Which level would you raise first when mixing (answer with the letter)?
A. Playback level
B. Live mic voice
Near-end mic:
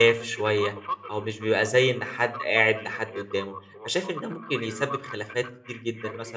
A